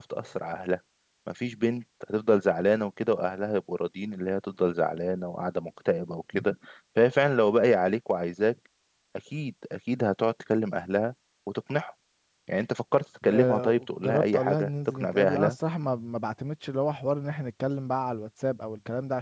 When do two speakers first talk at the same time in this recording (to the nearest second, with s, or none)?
13 s